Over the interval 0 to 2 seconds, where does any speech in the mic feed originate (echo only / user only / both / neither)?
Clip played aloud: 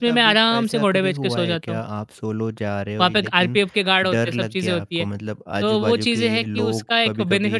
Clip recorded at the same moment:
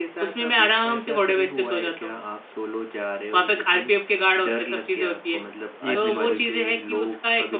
echo only